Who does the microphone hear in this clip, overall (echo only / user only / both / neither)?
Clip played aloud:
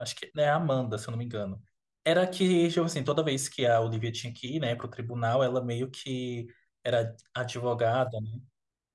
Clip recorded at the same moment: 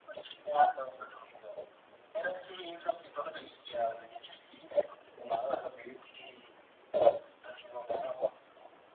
echo only